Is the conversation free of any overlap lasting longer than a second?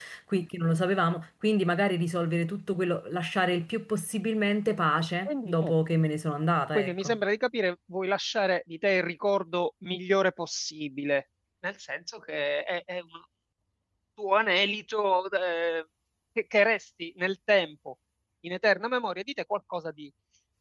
Yes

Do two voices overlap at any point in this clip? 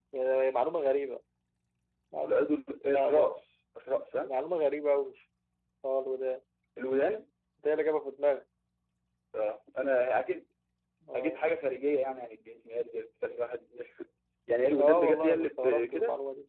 Yes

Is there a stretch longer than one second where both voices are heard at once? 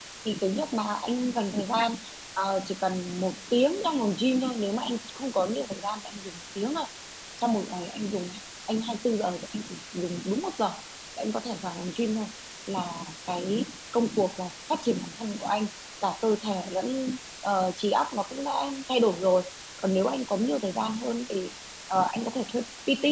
No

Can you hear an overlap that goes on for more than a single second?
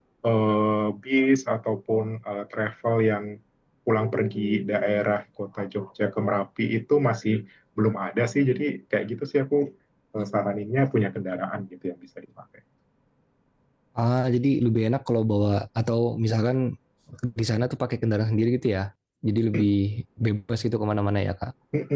No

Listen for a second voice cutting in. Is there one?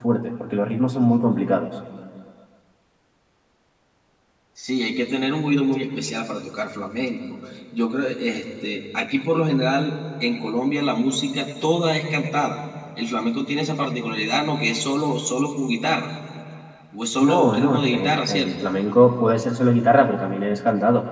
Yes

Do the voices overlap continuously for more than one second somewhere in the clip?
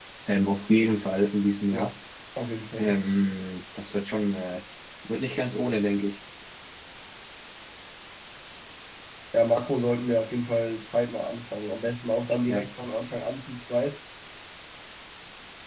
No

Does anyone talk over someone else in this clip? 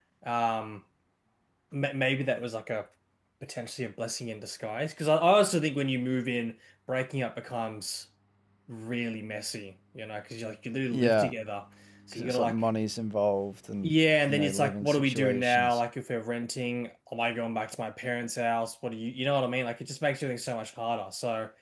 Yes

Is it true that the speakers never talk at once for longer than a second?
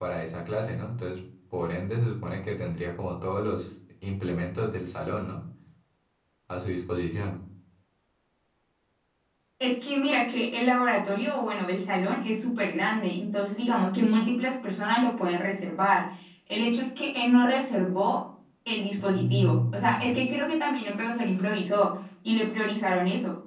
No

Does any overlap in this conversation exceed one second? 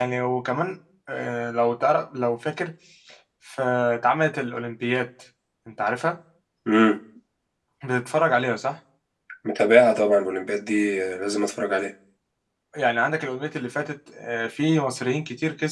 No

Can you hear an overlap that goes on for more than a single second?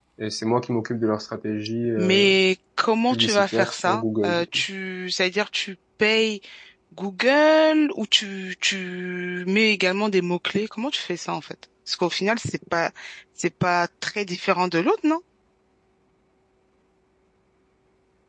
Yes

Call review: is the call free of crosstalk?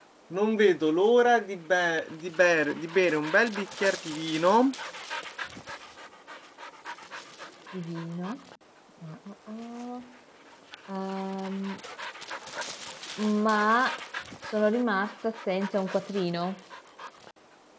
Yes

